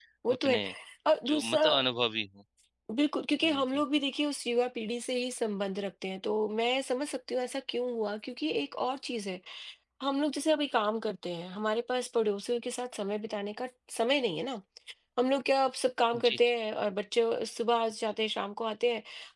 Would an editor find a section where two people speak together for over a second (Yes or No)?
No